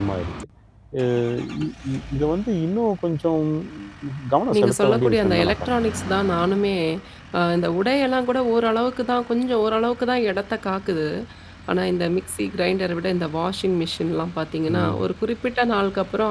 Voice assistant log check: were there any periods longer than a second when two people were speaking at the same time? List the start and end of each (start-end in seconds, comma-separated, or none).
4.5-5.8